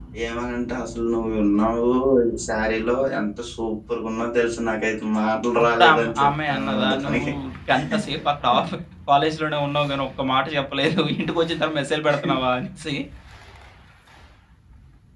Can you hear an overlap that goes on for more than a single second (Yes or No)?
Yes